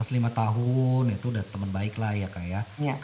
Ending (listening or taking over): listening